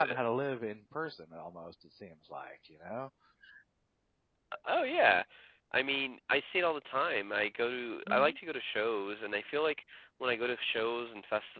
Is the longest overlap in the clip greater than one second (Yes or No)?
No